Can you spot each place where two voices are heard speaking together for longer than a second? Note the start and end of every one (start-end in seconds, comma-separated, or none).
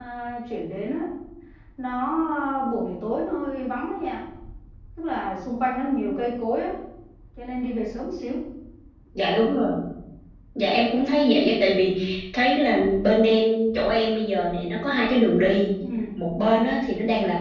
none